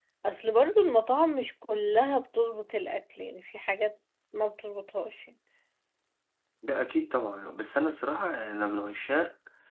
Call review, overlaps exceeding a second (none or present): none